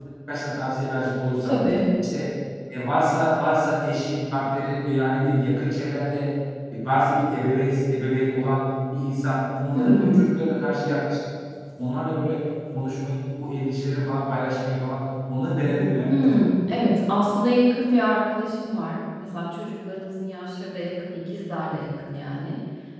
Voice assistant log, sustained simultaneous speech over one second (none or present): none